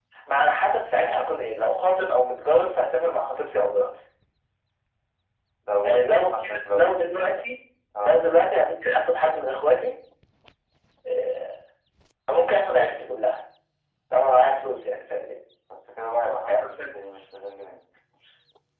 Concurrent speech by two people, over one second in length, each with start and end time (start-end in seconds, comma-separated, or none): 5.8-7.0